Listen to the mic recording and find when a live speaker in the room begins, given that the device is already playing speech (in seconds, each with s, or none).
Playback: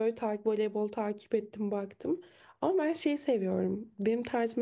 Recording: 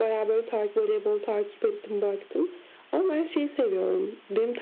none